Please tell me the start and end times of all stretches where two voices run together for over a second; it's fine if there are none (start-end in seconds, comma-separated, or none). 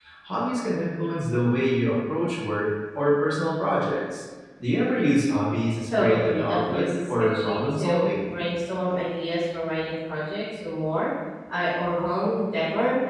5.8-8.1